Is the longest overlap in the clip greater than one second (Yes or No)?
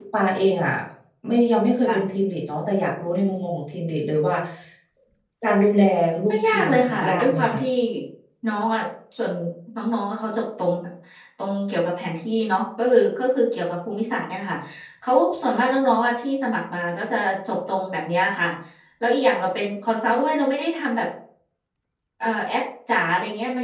Yes